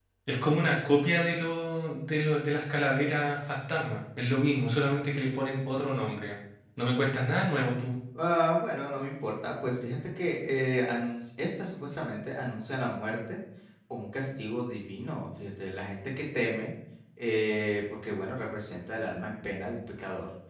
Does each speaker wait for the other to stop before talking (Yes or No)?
Yes